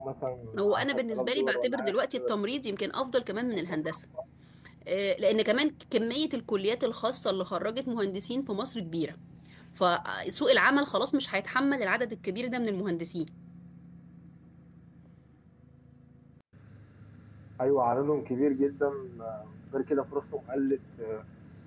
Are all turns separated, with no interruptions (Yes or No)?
No